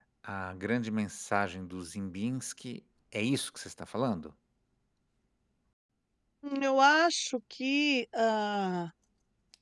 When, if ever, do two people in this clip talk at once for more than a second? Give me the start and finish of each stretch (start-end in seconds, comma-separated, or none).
none